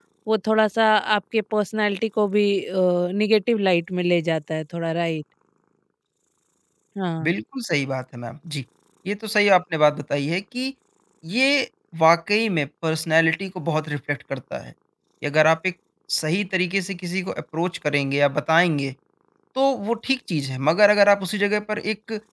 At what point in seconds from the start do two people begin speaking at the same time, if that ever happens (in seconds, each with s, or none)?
none